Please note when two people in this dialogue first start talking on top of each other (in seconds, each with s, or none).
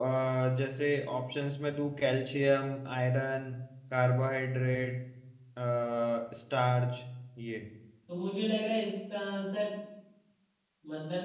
none